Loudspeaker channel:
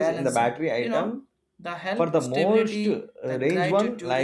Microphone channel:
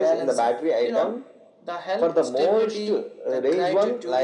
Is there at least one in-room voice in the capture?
No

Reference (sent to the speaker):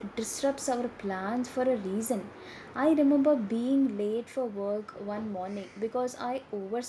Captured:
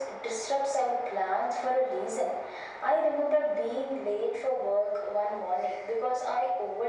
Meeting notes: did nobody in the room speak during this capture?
Yes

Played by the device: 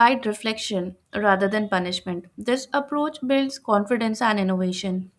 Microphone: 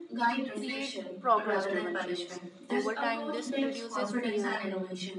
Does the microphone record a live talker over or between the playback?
Yes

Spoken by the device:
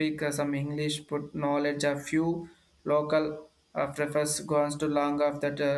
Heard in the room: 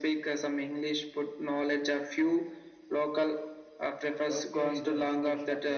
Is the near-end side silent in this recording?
No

